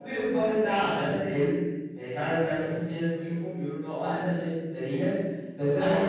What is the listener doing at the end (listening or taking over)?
listening